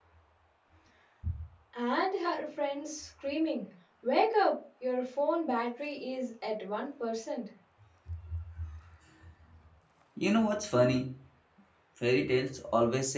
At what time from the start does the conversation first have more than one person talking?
none

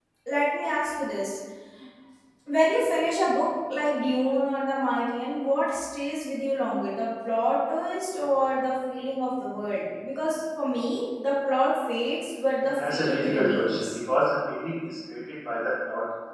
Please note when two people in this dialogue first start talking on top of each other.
13 s

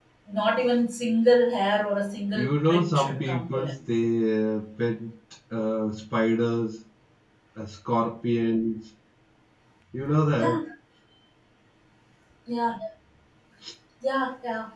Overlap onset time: 2 s

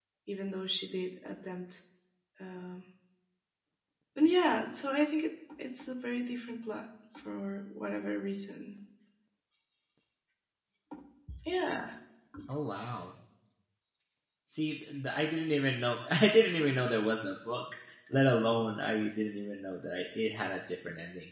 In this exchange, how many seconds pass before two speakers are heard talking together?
none

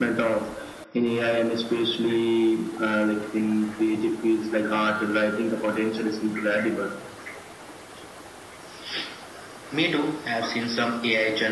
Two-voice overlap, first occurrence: none

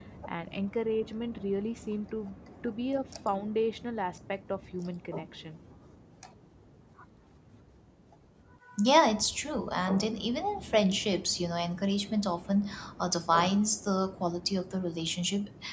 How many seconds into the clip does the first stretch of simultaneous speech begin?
none

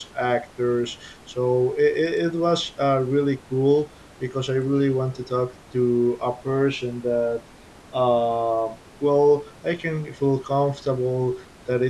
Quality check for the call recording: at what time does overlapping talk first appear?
none

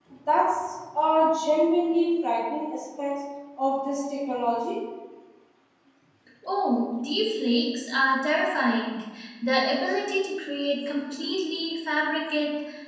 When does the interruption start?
none

